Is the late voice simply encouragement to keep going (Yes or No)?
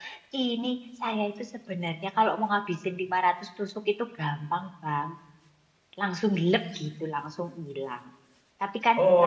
Yes